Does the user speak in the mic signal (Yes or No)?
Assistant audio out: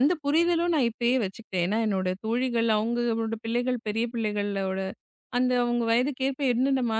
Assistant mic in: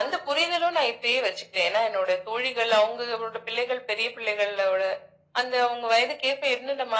No